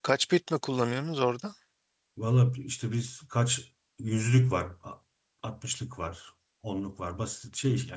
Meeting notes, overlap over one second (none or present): none